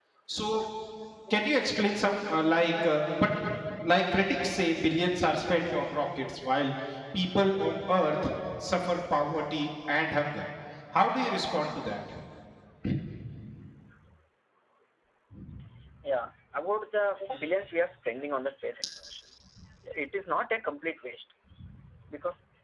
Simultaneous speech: No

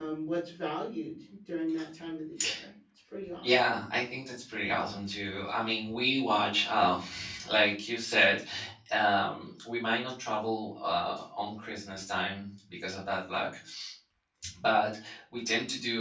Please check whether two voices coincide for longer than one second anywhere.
No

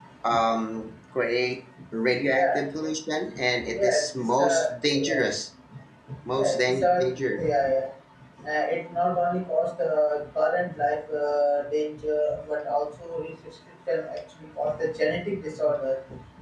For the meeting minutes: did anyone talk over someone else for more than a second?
Yes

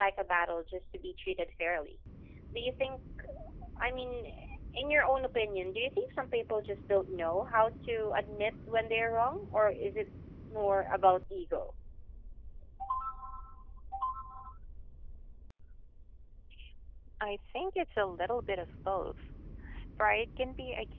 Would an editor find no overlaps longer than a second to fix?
Yes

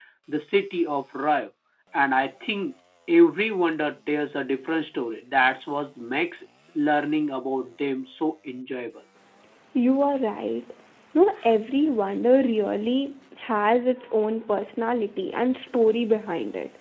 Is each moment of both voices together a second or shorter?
Yes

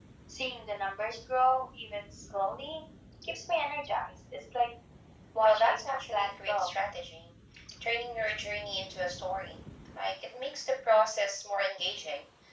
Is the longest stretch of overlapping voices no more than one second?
No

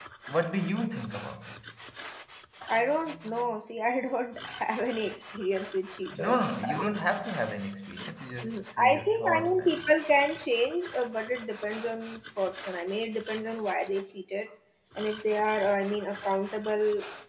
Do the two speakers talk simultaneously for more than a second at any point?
Yes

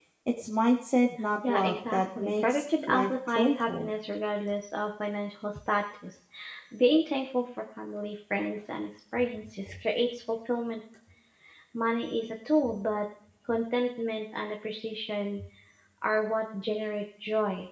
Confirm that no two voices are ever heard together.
No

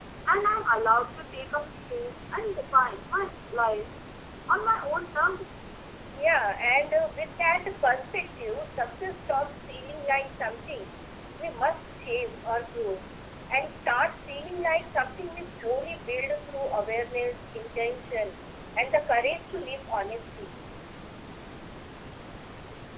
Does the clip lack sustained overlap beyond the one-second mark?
Yes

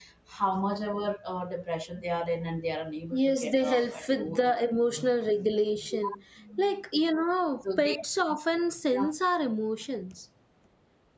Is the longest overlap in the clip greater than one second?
Yes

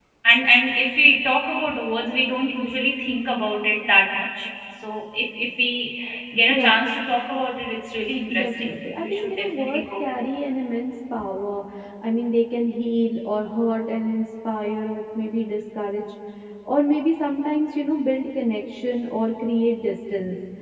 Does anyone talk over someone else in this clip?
Yes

